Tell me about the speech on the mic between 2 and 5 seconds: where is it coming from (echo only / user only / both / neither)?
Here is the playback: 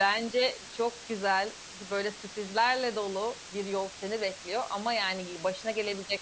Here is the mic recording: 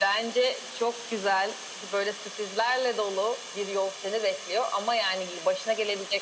echo only